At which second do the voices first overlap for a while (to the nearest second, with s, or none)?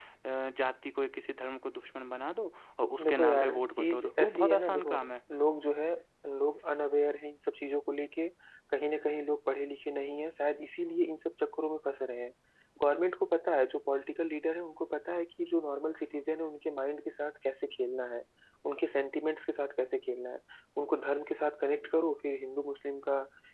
3 s